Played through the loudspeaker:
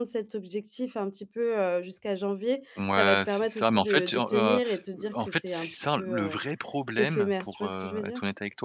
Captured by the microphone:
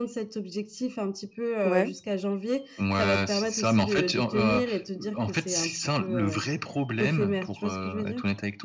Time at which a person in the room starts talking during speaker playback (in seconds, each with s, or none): 1.6 s